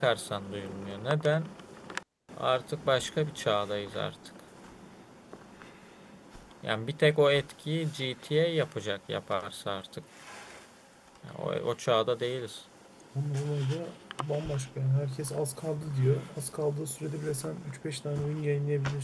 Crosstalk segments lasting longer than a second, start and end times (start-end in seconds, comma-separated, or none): none